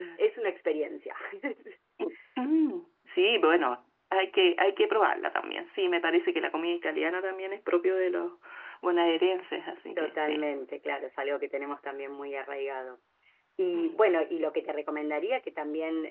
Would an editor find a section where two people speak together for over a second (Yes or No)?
No